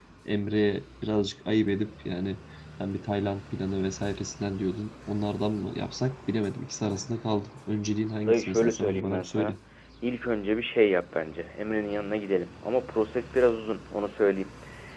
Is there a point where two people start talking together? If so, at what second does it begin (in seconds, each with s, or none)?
8.3 s